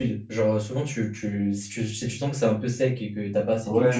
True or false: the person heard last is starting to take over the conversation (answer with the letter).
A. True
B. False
A